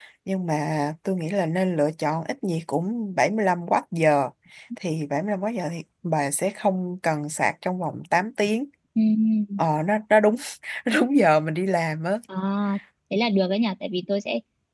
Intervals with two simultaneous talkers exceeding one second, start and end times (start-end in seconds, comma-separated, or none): none